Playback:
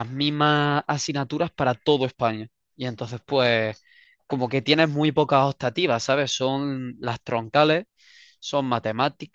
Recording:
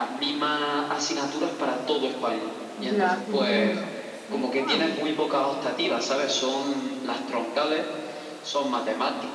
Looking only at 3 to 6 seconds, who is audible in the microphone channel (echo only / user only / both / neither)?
both